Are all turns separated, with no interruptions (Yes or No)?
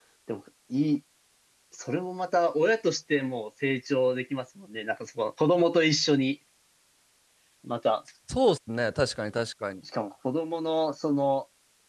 Yes